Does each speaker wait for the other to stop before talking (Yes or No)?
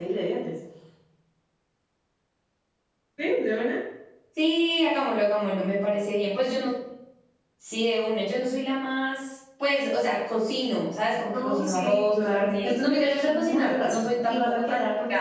No